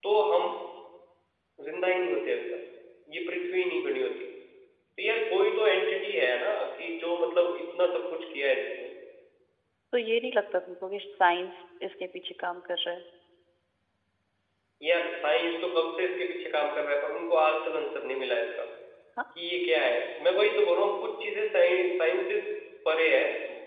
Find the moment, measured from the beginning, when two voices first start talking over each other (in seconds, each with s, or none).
none